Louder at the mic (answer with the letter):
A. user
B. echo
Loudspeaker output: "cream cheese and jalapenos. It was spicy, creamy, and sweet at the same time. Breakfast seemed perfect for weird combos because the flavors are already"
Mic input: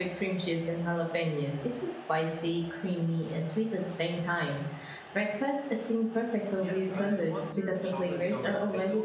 B